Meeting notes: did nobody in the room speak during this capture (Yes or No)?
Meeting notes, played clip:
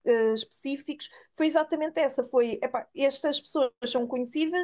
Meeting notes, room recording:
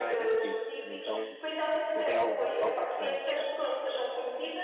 No